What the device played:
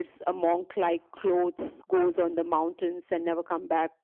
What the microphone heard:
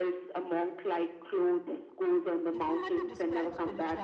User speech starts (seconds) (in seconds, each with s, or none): 2.5 s